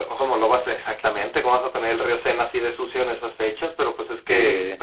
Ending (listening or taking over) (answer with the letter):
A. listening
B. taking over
A